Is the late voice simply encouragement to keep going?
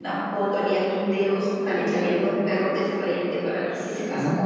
No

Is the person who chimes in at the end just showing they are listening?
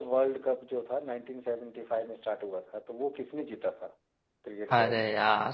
No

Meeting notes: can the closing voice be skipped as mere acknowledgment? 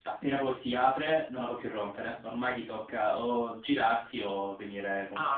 No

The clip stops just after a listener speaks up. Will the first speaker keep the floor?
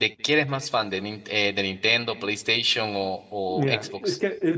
No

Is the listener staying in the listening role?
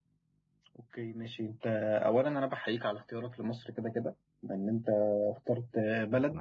Yes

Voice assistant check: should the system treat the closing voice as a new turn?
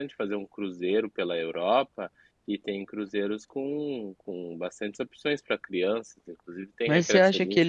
Yes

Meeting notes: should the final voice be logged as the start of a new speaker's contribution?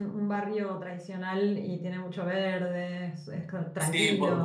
Yes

